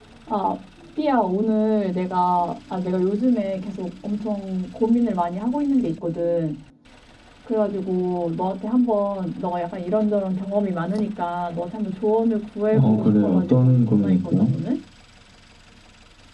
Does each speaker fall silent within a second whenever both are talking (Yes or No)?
No